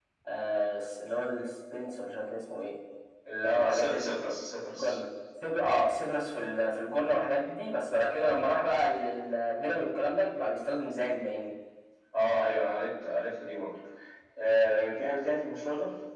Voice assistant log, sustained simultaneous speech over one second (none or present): none